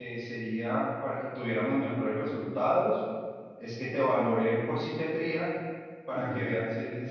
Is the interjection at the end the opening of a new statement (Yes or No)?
No